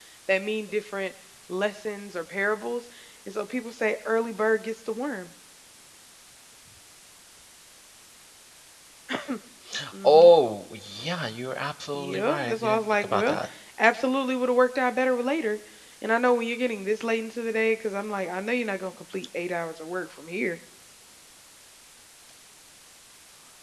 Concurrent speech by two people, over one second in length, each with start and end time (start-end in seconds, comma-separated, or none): 11.9-13.4